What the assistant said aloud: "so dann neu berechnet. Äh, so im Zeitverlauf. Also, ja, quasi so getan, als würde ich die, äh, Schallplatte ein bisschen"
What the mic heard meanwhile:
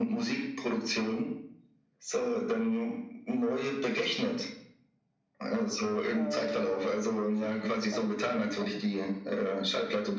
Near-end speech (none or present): present